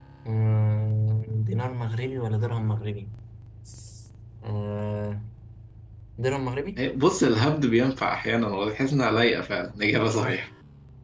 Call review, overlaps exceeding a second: none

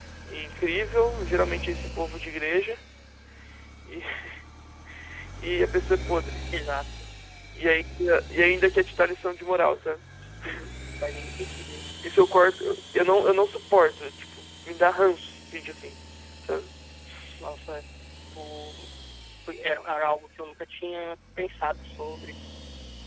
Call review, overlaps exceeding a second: none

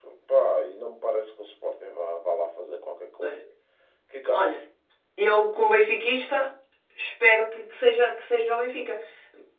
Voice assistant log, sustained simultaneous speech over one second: none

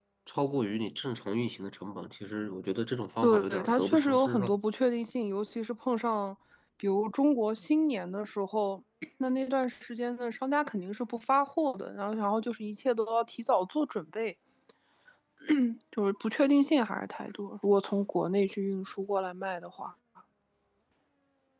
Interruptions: present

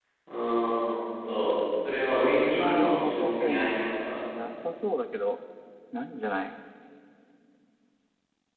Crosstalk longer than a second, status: present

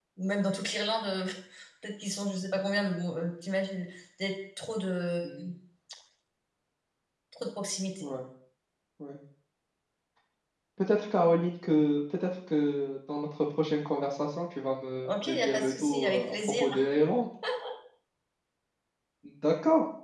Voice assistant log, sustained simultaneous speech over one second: present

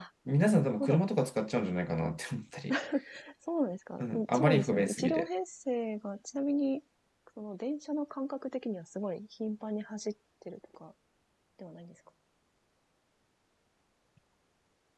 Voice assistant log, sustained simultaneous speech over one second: present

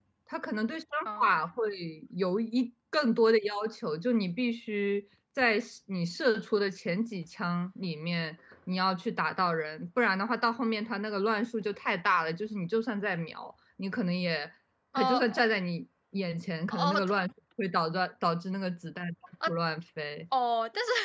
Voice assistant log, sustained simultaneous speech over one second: none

